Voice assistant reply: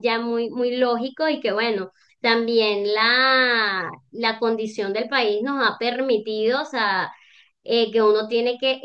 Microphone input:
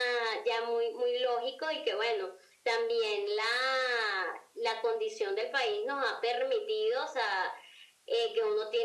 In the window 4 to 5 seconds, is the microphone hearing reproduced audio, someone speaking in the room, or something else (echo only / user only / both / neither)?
echo only